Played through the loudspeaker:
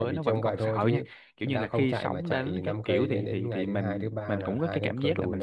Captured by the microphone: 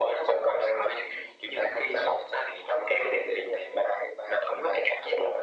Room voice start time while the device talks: none

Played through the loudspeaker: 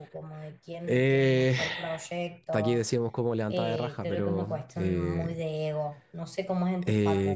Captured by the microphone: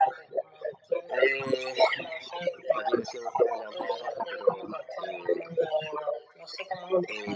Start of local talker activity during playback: none

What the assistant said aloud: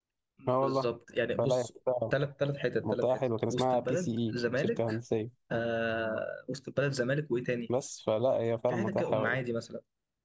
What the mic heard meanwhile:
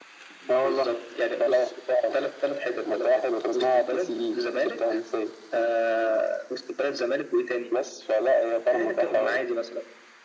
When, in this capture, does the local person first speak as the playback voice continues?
none

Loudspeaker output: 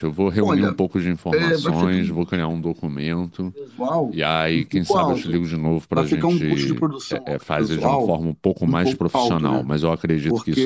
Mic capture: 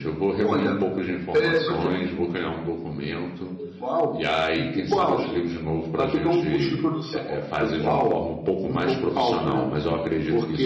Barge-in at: none

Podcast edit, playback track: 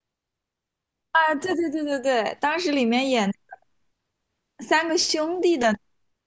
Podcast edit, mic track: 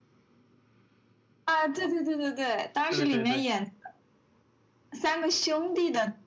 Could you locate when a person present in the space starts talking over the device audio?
3 s

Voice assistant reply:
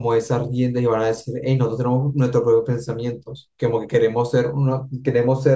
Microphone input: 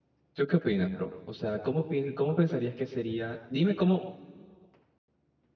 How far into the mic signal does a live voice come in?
0 s

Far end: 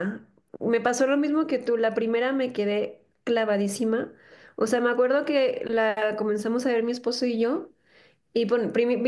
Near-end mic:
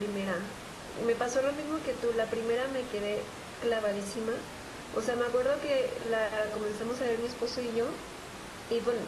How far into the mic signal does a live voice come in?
none

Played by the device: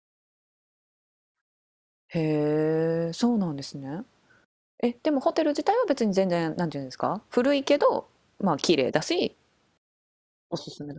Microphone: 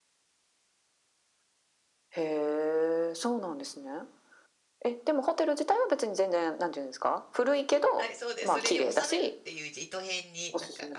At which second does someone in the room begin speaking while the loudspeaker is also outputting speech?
8 s

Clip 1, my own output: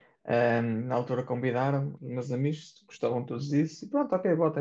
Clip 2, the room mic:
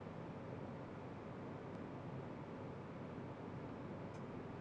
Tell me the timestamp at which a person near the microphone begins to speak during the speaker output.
none

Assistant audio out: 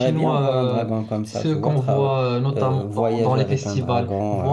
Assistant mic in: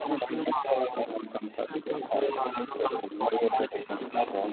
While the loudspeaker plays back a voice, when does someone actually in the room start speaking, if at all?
none

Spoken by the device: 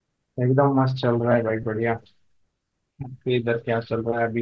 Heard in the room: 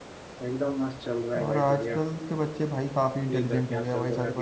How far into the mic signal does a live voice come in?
1 s

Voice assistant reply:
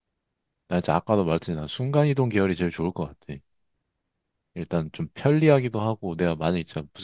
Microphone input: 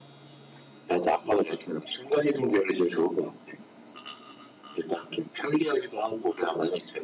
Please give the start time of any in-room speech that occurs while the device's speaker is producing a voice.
none

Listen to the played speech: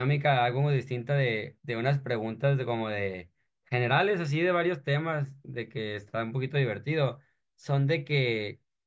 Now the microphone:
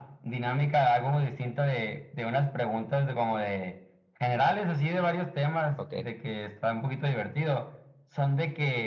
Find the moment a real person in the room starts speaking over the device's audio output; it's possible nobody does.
6 s

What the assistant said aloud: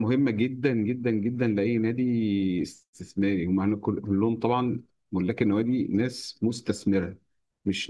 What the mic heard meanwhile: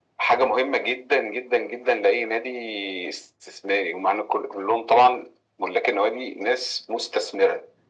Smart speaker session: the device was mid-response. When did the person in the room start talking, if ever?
none

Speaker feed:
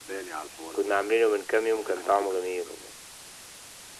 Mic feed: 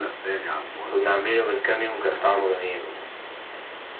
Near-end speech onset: none

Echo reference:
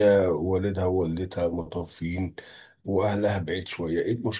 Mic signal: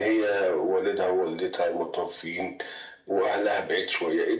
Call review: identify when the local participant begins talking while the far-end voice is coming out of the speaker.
none

